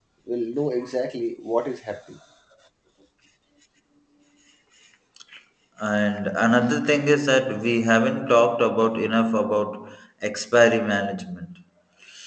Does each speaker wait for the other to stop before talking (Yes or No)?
Yes